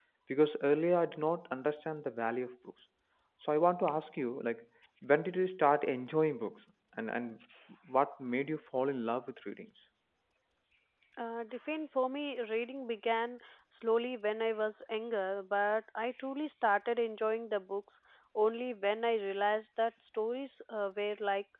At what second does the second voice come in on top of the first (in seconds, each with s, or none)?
none